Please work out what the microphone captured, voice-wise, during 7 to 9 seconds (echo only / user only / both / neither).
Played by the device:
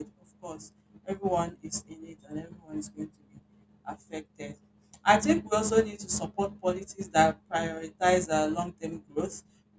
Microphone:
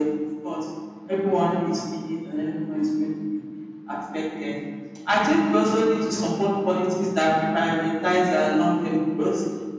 echo only